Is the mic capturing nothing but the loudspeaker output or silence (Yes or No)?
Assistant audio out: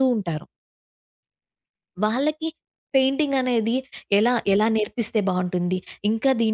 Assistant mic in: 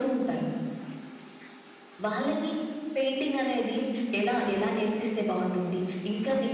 Yes